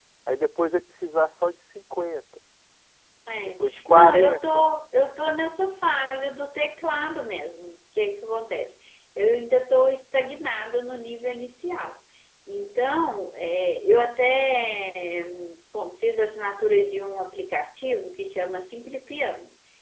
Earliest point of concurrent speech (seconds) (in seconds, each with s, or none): 3.4 s